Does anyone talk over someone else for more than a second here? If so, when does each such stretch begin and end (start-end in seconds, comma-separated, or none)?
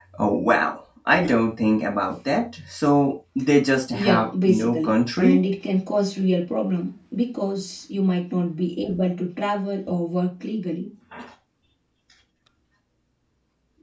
3.9-5.4